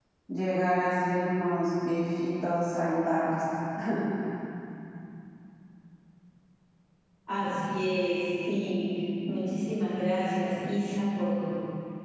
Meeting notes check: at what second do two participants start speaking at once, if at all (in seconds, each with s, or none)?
none